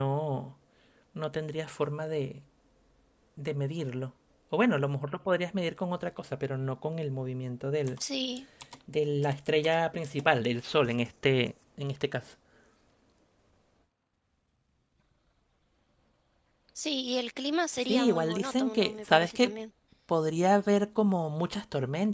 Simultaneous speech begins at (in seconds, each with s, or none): 17.8 s